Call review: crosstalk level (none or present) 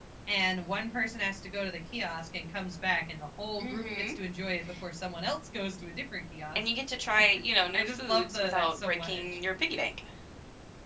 present